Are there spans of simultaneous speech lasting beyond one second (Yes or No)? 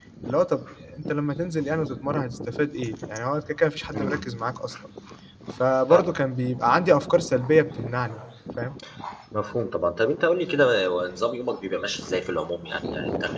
No